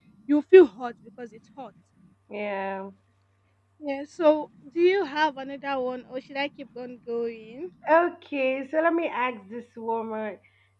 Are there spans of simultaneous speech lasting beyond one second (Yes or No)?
No